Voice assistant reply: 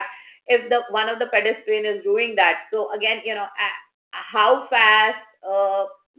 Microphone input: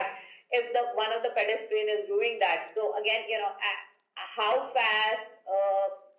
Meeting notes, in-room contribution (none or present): none